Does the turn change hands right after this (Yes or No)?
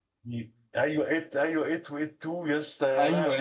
Yes